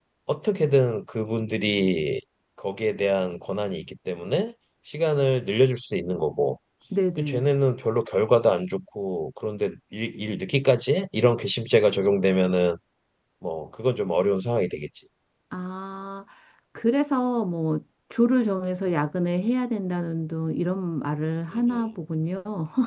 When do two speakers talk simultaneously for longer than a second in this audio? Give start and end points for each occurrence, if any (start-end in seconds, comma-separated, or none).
none